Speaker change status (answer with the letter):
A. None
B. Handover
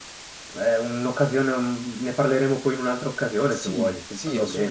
B